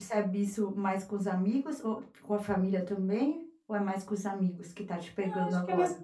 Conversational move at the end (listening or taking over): taking over